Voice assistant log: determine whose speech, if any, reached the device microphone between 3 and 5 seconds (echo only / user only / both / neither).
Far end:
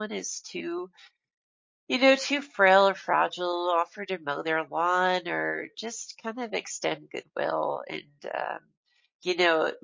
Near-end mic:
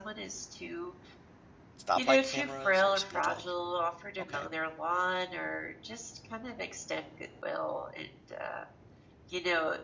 both